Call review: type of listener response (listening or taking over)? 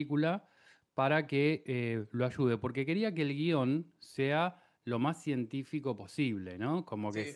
taking over